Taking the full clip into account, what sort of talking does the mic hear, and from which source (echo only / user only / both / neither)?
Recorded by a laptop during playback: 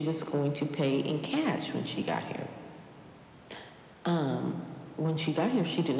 echo only